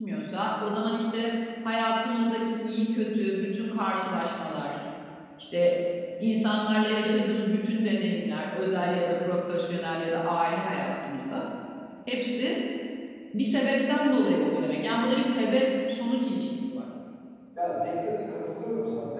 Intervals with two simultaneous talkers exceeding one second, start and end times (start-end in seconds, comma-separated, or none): none